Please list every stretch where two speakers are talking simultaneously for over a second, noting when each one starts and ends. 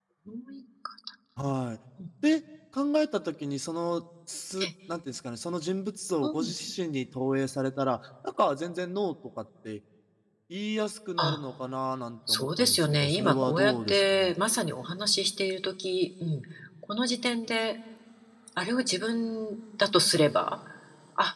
12.3-14.3

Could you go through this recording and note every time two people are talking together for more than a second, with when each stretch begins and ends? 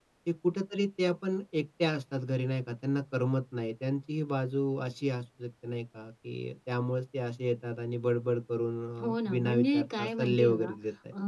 9.0-10.7

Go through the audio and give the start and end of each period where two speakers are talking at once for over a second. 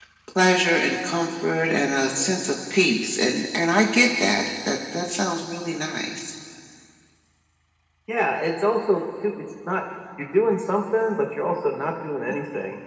none

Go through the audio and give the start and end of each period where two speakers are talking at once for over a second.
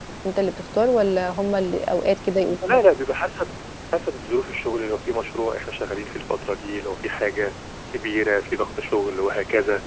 none

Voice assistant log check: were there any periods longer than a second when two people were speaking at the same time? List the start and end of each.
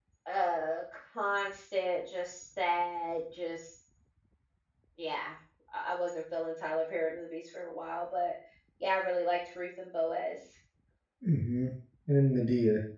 none

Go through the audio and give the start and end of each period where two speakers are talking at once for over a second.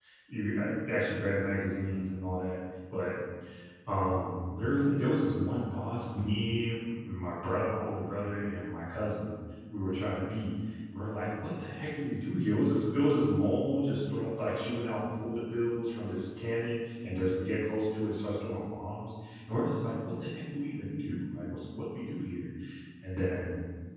none

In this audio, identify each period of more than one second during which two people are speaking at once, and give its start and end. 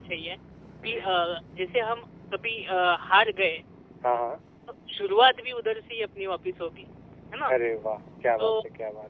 none

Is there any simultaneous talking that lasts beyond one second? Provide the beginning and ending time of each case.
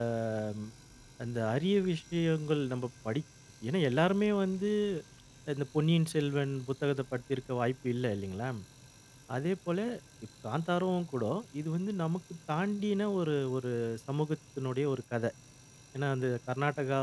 none

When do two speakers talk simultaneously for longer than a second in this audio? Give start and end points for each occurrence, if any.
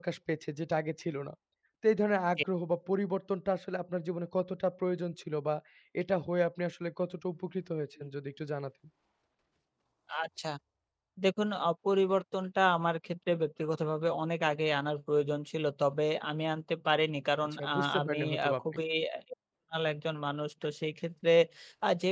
17.4-18.8

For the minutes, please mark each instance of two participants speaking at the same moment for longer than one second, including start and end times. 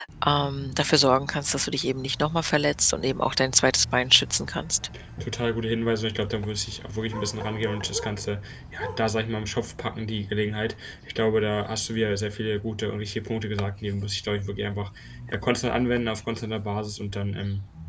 none

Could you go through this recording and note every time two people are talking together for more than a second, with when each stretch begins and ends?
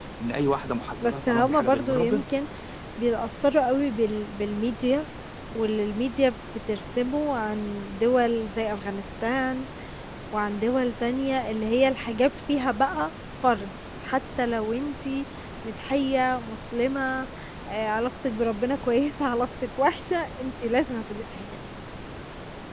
1.0-2.2

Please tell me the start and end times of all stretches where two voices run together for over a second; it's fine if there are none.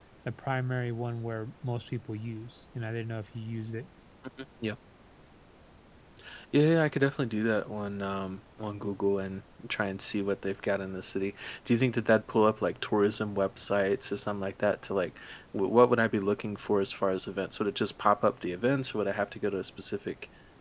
none

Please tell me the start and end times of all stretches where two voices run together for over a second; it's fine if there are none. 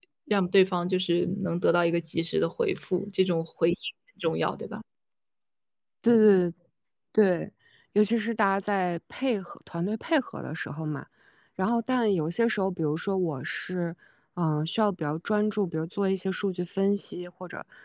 none

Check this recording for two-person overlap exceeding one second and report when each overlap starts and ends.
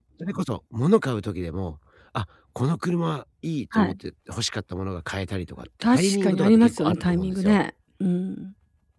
5.9-7.6

